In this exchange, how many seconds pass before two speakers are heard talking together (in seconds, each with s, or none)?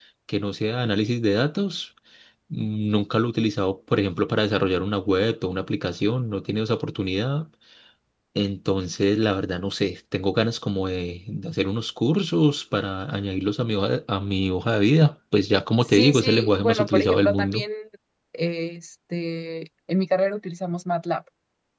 15.8 s